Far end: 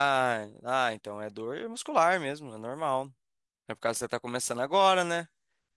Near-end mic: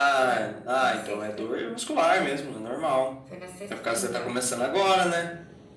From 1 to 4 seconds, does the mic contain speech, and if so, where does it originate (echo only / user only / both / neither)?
both